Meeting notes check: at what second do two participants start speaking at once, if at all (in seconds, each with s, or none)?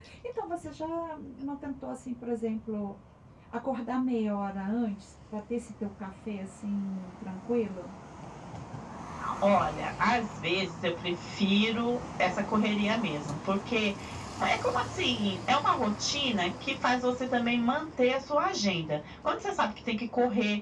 none